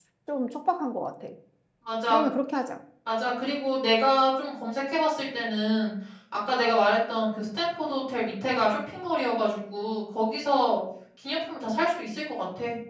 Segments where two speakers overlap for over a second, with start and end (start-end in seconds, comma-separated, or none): none